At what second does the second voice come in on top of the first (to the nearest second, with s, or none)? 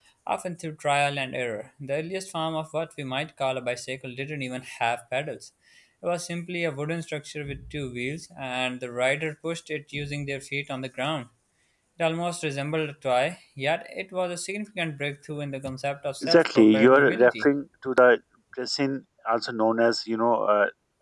16 s